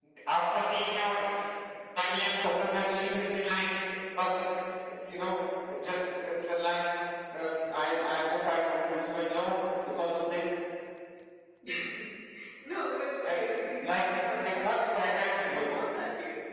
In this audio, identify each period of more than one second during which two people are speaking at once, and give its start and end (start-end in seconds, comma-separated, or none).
13.8-15.8